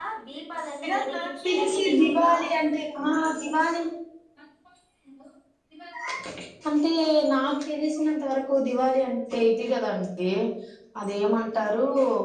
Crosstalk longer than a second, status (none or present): present